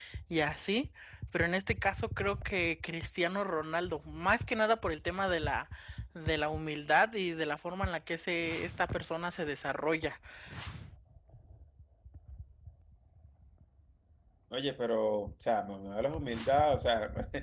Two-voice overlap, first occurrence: none

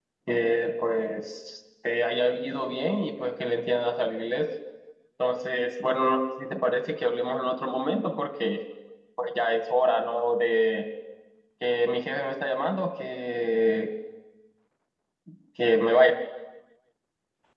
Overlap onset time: none

